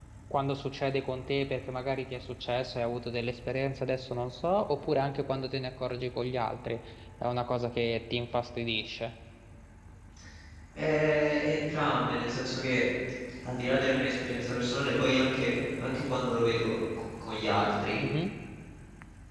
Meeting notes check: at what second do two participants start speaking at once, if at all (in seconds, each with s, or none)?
none